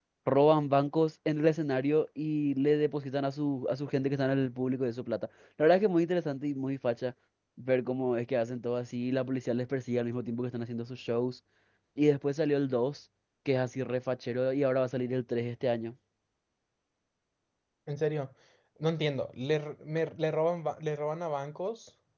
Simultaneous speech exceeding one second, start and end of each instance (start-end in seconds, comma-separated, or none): none